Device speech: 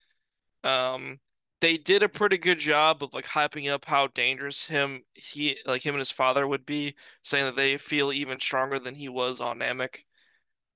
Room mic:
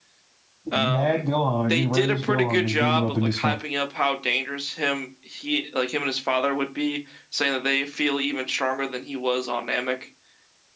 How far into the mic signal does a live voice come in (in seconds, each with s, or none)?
0.7 s